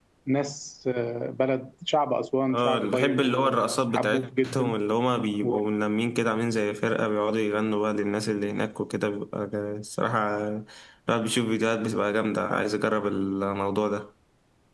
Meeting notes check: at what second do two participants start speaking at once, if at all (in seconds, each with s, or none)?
2.5 s